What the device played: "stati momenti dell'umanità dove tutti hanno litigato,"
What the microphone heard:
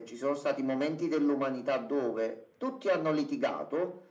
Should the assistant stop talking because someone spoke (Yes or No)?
No